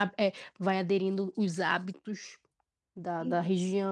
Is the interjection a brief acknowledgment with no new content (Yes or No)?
Yes